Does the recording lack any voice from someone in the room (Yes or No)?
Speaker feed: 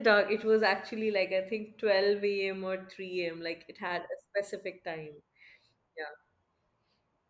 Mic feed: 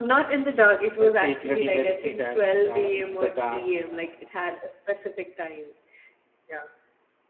No